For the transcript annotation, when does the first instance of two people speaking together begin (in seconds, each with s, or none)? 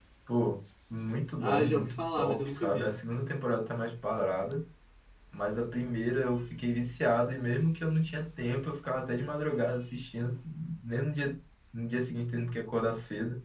1.4 s